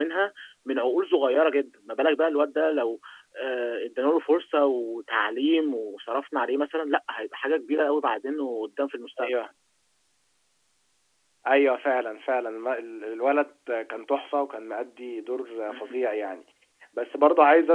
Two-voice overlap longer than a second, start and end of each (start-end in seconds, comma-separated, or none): none